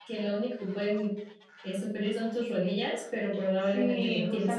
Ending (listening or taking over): taking over